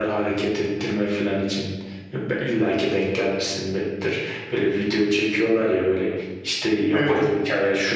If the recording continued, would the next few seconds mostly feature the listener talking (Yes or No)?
No